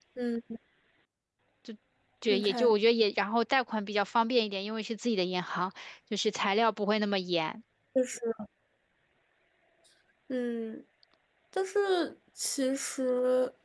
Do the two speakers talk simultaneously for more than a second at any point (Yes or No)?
No